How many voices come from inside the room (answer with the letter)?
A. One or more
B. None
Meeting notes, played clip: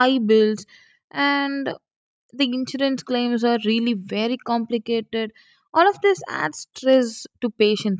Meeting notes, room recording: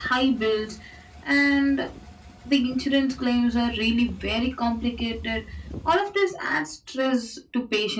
B